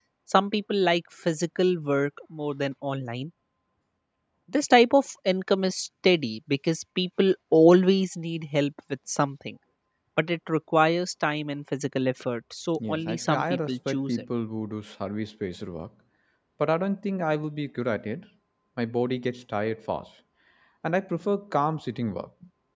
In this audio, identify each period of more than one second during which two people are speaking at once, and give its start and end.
12.9-14.2

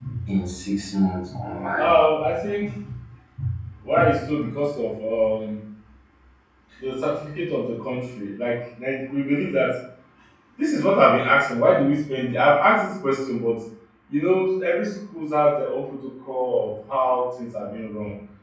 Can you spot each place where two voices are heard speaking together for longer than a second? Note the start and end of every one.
none

